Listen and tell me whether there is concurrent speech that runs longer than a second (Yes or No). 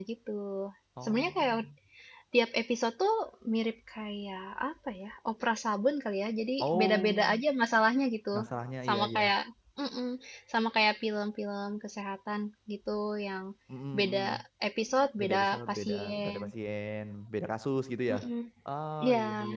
Yes